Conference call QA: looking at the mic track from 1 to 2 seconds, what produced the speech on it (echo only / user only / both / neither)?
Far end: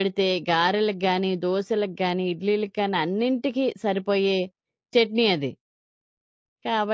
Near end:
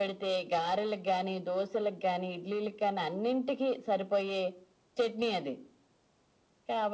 echo only